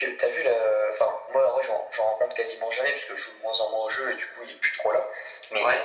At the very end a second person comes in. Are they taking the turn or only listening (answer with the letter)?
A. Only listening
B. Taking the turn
A